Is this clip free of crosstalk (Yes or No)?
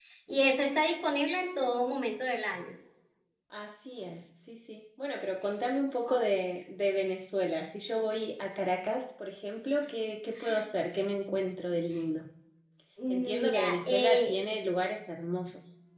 No